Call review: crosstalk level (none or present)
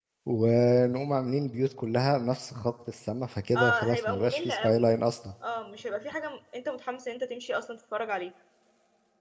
present